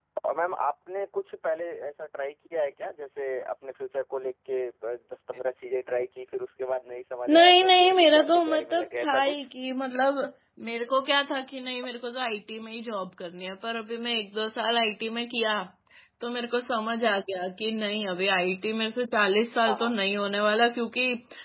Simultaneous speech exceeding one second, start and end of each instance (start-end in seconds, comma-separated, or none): 7.3-9.5